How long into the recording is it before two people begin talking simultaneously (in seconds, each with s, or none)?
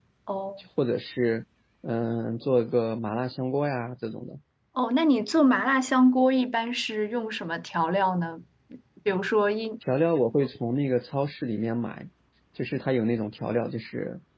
none